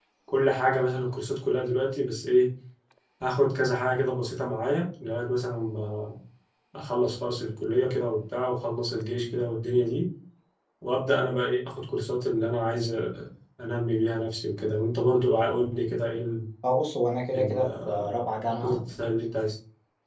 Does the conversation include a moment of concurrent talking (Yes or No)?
Yes